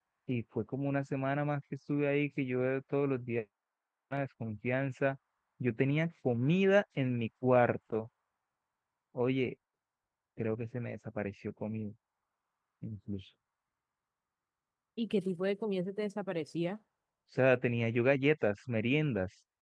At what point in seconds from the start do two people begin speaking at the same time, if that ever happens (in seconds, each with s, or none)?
none